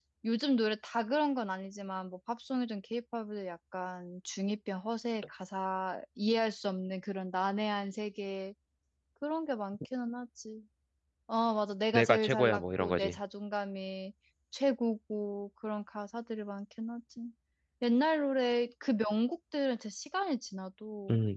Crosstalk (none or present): present